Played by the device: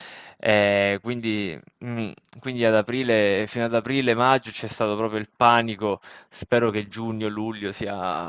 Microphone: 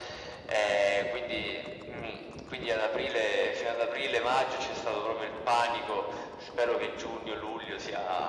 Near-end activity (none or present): none